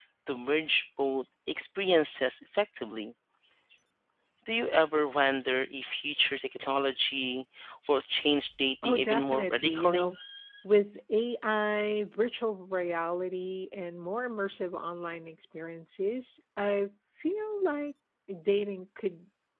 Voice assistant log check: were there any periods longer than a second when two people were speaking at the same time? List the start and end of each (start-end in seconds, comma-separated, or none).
8.8-10.1